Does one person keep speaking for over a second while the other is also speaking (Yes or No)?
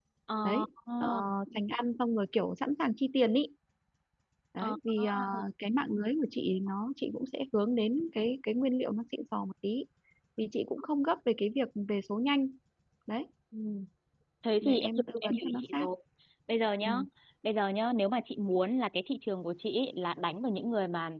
Yes